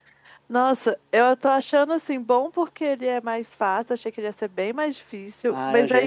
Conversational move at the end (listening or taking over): taking over